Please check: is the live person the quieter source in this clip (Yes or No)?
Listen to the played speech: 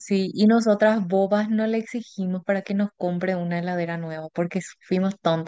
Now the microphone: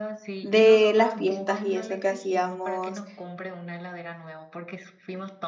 No